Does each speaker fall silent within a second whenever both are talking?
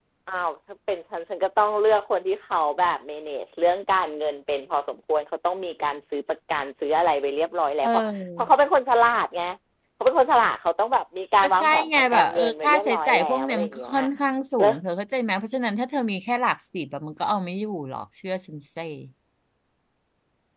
No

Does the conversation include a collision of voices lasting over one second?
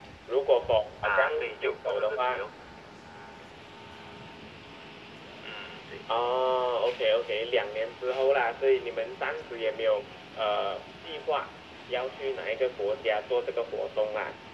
Yes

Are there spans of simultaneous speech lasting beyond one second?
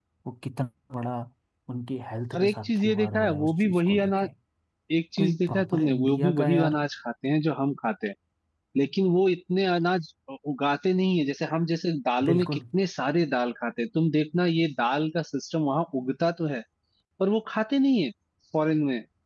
Yes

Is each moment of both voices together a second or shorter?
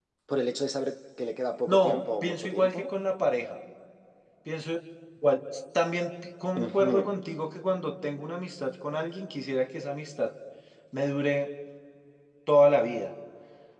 No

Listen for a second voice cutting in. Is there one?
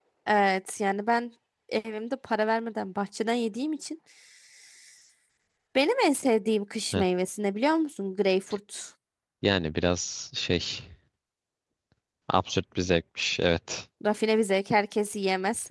No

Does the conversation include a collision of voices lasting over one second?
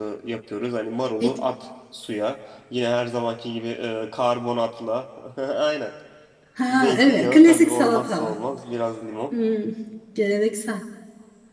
Yes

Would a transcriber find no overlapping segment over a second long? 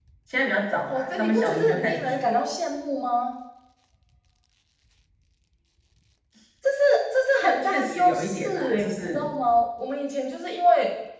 No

